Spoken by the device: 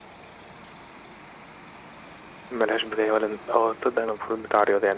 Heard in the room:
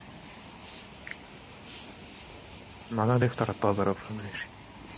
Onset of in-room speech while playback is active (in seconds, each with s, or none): 2.9 s